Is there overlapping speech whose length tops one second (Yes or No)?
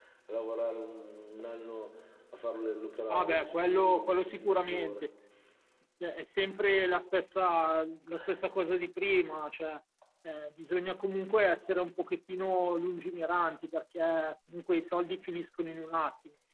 Yes